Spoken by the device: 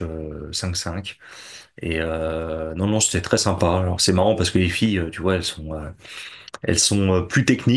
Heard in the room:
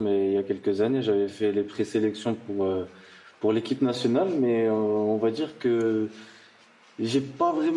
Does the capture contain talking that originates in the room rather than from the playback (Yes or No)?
Yes